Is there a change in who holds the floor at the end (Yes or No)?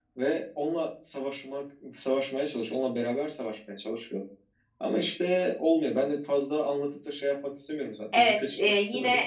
Yes